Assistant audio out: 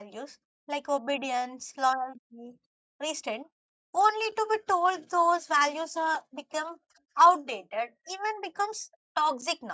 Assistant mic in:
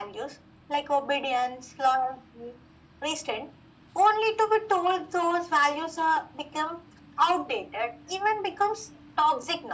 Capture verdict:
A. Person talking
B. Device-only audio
B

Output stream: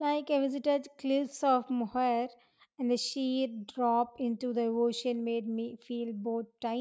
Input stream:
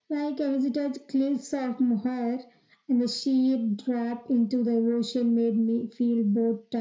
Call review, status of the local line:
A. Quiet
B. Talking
A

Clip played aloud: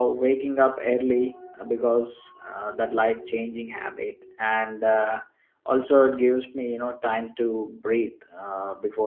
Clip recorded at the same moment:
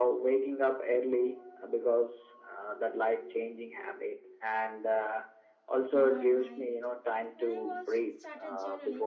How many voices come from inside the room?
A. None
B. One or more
B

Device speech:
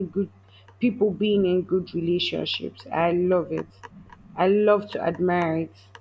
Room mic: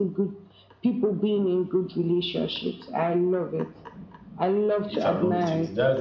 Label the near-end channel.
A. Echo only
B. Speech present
B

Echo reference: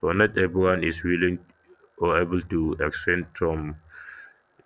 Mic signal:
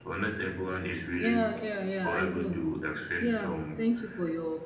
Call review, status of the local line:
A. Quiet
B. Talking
B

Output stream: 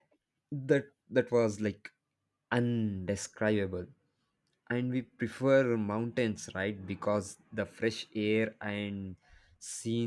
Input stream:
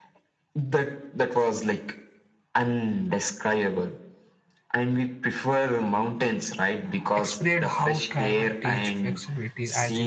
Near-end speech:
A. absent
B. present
B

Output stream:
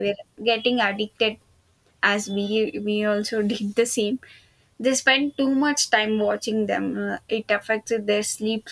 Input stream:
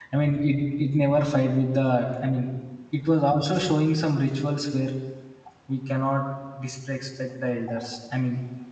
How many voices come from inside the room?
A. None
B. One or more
B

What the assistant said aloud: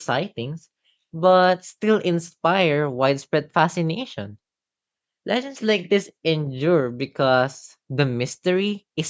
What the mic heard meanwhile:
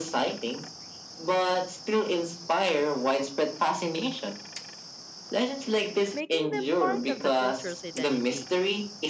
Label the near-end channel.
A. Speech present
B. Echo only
A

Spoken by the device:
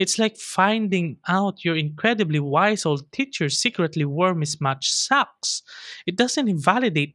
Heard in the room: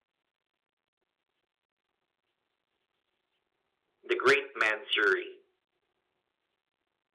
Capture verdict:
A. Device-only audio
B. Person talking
B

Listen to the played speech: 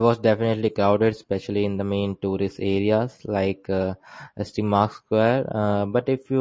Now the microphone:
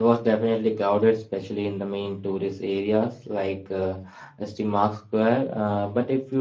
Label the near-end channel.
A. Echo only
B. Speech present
A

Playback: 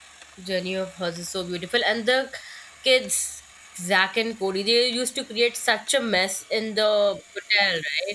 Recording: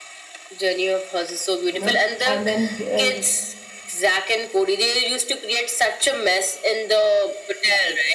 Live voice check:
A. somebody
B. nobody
A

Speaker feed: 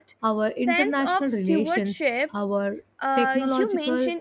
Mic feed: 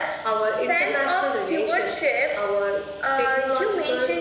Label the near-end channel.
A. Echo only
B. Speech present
A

